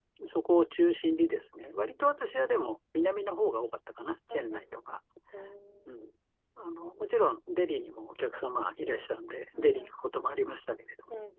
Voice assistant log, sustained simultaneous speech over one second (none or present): none